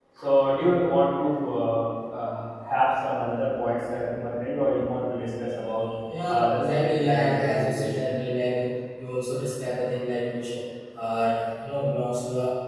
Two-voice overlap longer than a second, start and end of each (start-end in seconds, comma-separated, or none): 6.3-7.8